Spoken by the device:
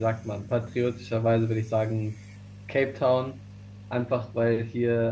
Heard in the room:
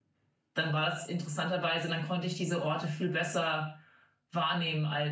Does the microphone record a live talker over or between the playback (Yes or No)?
Yes